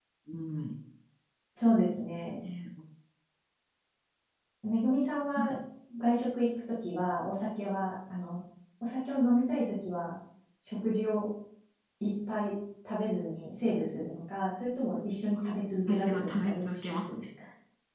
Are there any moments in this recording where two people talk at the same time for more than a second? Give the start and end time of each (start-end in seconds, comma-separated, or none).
15.9-17.2